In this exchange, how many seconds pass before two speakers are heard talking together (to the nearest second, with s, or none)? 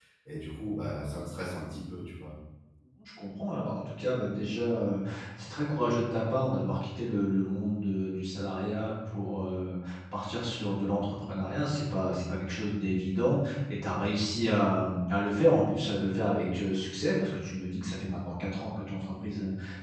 none